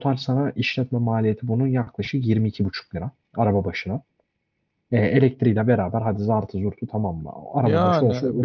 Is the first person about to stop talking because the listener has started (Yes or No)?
Yes